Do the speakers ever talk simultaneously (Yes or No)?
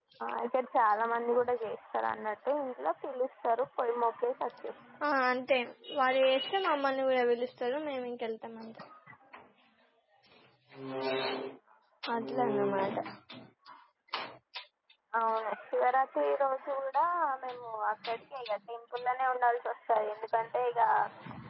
No